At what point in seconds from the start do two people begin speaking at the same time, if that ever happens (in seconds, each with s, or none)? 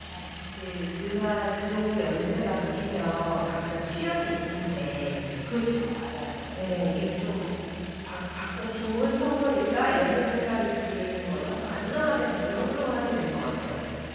none